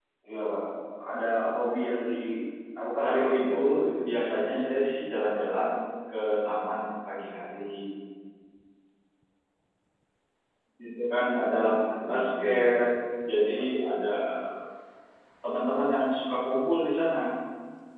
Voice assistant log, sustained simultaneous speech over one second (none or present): present